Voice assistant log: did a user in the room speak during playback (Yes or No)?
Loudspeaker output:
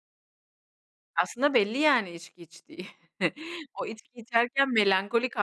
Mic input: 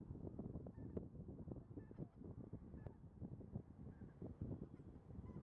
No